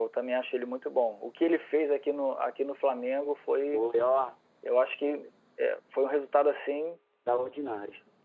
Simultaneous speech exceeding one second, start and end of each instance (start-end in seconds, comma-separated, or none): none